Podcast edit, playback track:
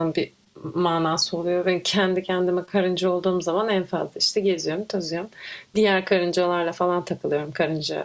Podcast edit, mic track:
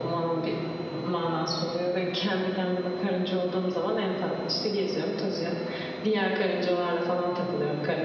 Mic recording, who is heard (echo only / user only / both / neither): echo only